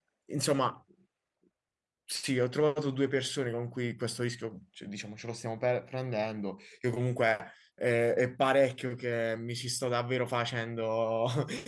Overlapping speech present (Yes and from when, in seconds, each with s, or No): No